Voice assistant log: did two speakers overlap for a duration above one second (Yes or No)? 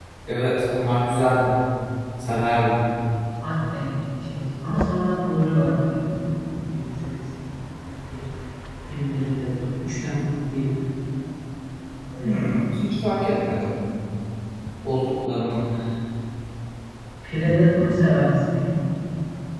No